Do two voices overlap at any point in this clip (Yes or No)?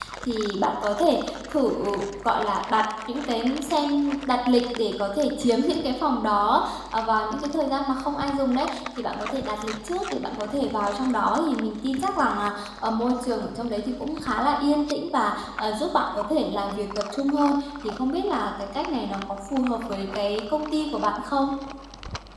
No